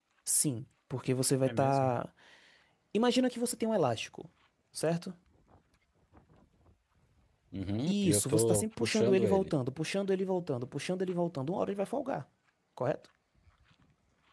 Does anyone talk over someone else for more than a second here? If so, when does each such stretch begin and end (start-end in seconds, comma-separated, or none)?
7.9-9.5